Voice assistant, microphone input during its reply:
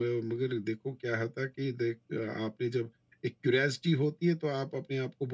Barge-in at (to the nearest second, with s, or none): none